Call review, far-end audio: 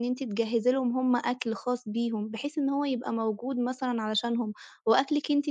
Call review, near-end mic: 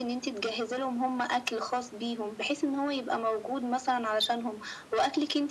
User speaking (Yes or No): No